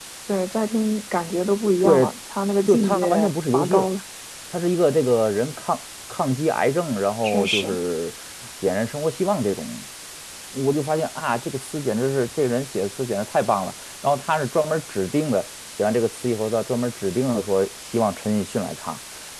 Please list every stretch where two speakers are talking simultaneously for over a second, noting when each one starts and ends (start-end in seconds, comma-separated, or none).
2.7-3.9